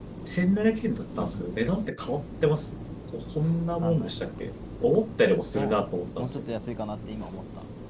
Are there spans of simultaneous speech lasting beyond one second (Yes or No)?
No